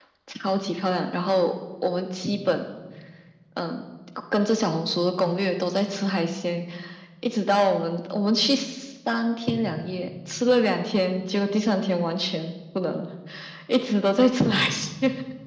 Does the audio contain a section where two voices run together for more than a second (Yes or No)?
No